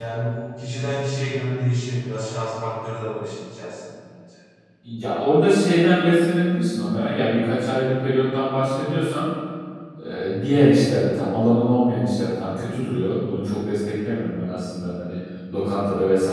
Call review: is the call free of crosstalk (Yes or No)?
Yes